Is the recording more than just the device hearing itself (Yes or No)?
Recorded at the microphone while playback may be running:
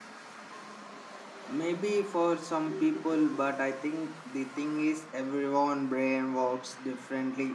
Yes